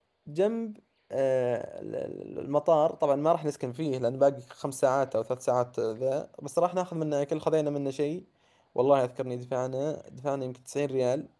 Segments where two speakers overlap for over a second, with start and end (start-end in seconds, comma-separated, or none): none